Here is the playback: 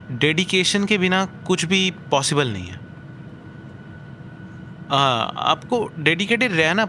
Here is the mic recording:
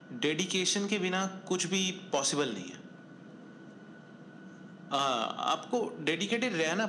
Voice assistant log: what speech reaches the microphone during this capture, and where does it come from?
echo only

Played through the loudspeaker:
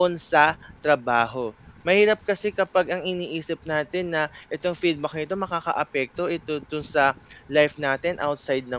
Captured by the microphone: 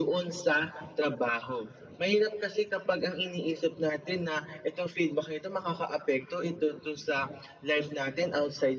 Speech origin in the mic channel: echo only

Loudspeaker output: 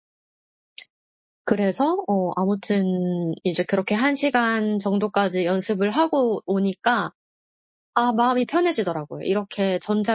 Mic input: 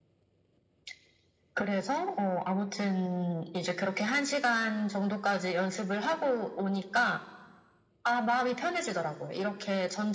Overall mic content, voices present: echo only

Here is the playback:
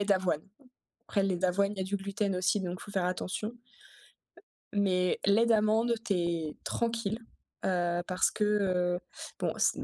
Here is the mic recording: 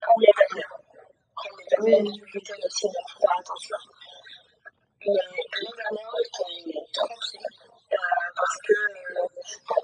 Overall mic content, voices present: both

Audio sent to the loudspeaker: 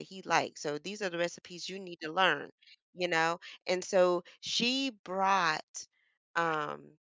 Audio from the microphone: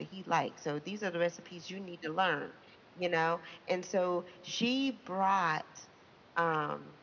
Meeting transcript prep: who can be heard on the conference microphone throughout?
echo only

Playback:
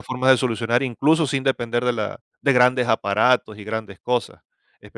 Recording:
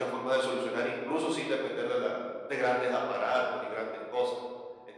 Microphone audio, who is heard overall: echo only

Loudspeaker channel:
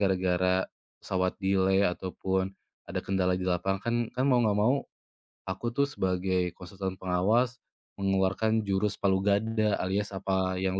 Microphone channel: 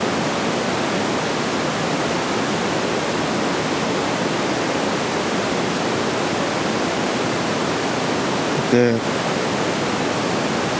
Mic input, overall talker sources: user only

